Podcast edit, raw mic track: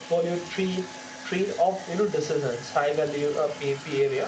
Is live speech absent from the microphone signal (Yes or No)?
No